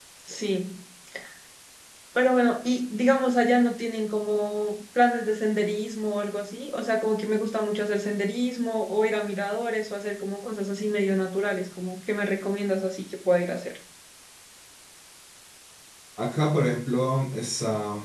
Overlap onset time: none

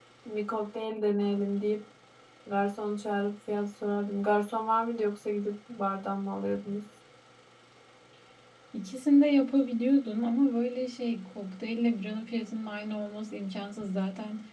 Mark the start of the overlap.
none

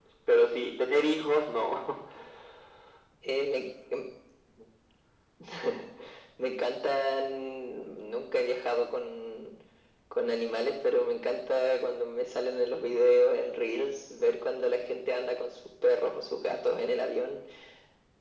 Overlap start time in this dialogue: none

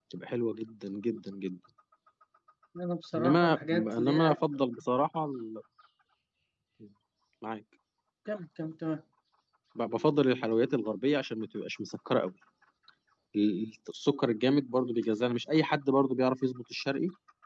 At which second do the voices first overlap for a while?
3 s

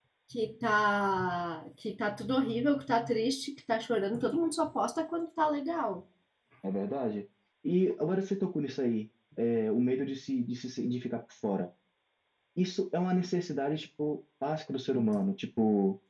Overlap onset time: none

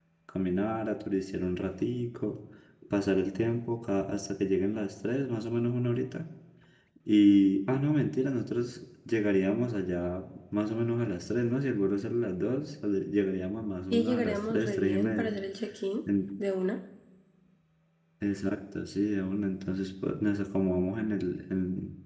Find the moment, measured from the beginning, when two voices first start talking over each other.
14 s

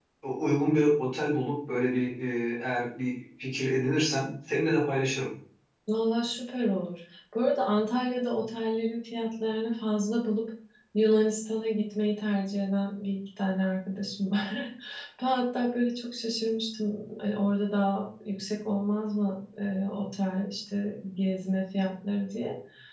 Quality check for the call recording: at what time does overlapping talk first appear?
none

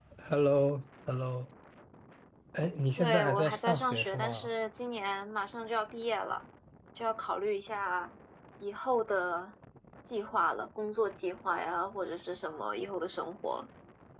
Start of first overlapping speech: 3 s

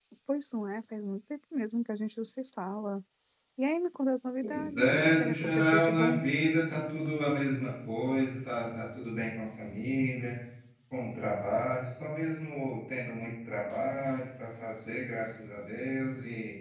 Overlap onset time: 4 s

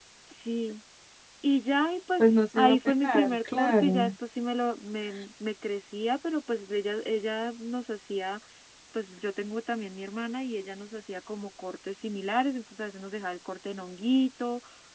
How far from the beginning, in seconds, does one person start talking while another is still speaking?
2 s

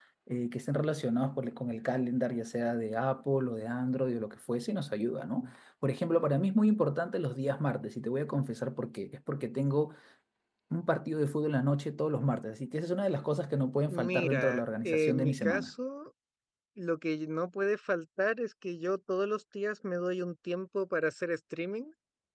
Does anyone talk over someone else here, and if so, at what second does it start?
14 s

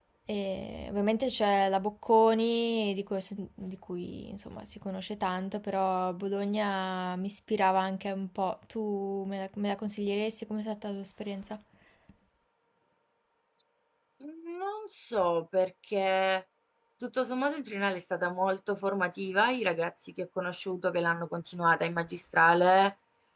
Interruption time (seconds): none

